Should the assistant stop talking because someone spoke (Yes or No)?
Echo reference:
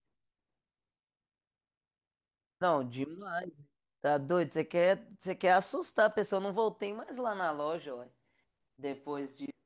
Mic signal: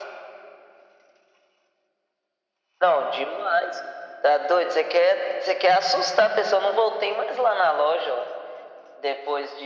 No